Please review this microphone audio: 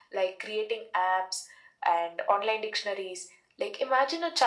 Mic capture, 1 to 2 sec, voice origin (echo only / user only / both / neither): echo only